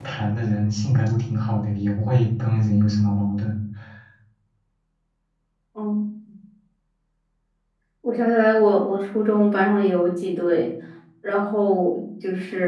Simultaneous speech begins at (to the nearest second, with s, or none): none